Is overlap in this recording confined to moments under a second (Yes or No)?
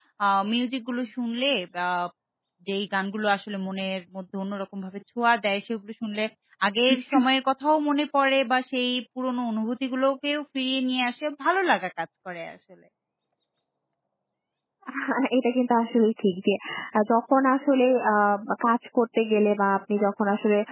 Yes